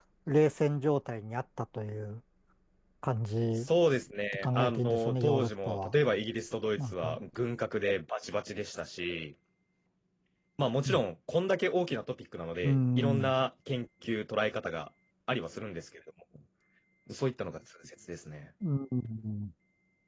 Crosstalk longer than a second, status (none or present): present